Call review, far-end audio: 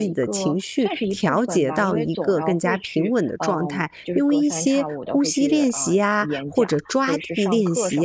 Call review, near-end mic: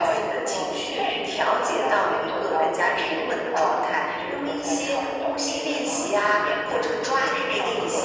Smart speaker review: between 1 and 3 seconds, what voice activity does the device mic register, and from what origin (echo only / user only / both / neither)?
echo only